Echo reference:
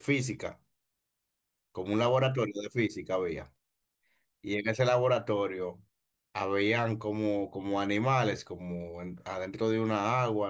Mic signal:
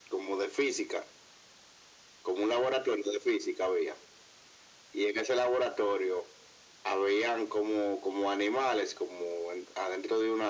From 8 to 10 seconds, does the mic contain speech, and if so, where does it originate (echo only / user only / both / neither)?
echo only